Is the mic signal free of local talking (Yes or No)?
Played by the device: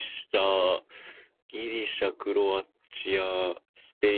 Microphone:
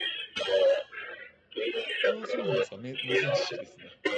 No